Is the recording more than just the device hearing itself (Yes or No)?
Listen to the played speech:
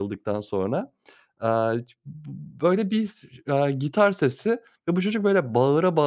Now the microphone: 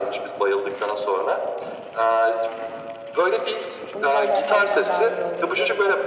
Yes